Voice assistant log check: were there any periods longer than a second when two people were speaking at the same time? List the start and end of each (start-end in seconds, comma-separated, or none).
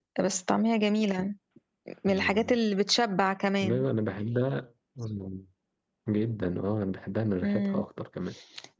none